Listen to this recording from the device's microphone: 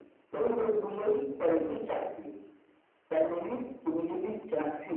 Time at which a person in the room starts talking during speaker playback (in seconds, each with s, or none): none